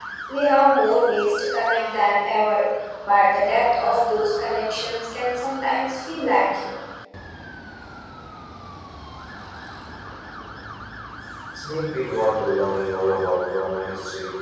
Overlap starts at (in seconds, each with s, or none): none